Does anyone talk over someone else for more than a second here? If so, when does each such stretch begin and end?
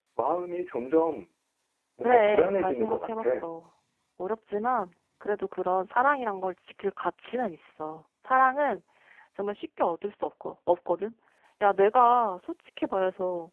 2.0-3.4

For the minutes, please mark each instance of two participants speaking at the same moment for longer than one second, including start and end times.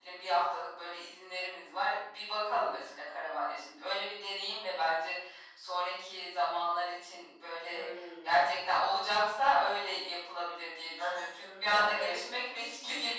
11.0-12.2

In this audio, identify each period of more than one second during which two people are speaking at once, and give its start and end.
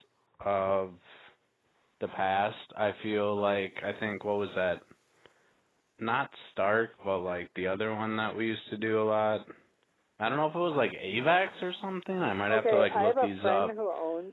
12.5-13.7

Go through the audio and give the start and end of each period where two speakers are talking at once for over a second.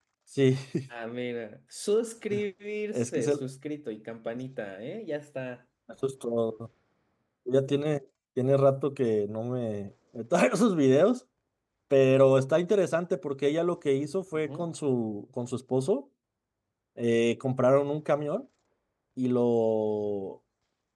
none

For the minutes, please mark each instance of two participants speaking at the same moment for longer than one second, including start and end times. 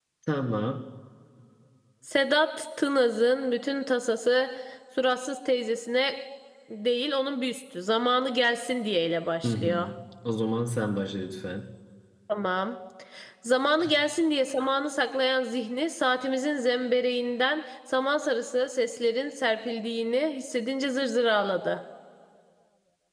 none

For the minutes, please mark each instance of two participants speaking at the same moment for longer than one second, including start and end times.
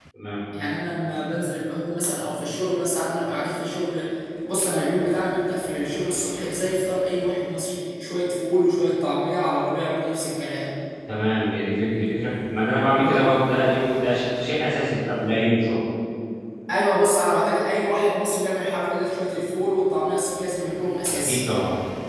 none

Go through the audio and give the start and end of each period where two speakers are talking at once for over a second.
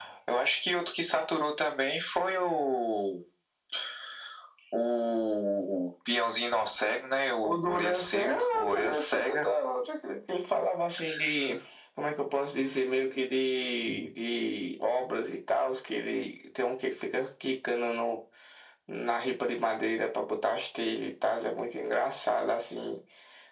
7.4-9.5

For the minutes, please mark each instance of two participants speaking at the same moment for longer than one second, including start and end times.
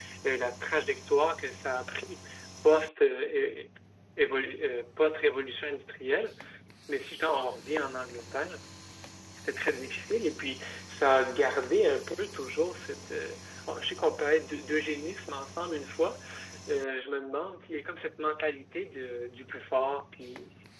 none

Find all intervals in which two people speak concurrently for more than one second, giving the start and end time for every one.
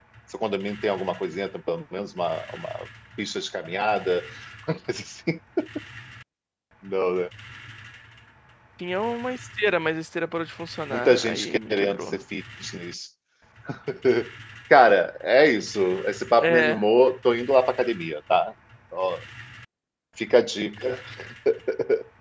10.9-12.2

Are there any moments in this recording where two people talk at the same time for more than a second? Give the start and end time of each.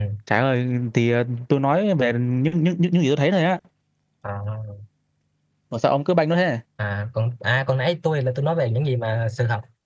none

